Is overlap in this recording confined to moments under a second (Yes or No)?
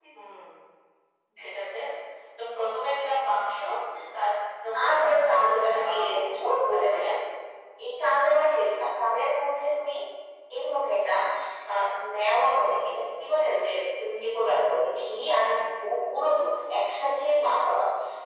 No